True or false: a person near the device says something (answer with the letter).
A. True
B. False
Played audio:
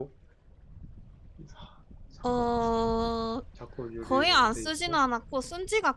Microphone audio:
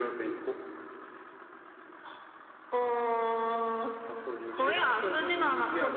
A